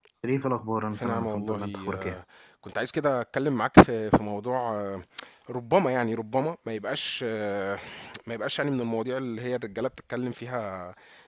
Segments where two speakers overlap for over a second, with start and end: 0.9-2.2

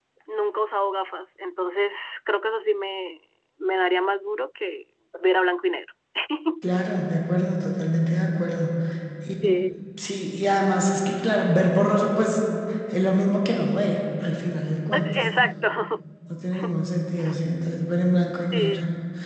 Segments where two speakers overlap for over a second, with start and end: none

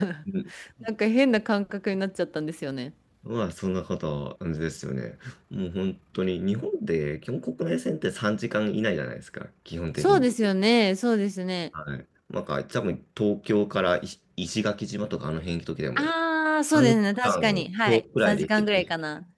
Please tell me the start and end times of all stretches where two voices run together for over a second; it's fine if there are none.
16.7-18.9

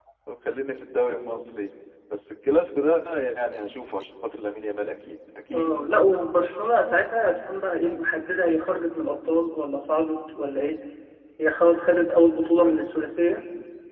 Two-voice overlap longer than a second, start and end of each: none

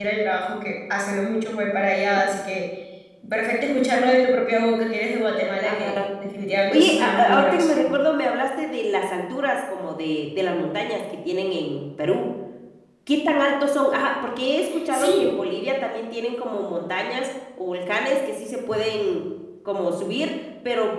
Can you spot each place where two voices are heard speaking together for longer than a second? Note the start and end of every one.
6.7-8.0

